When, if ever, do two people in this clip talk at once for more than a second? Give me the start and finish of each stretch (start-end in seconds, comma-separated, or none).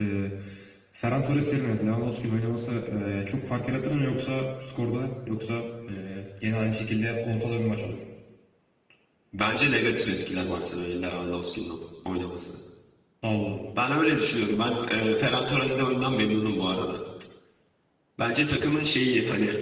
none